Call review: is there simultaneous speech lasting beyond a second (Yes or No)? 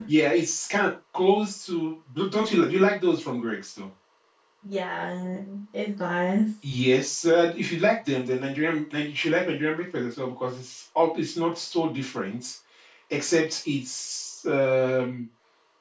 No